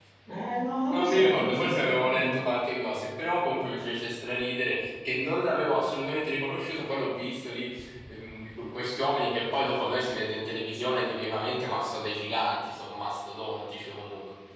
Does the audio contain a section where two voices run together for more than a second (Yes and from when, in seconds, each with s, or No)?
Yes, from 0.9 s